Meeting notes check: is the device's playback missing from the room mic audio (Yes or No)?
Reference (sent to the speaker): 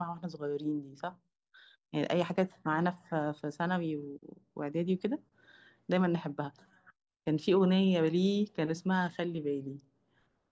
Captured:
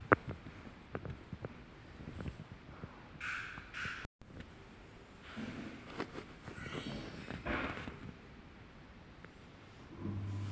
Yes